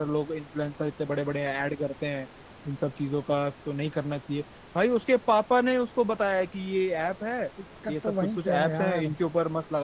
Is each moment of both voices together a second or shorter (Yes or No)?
No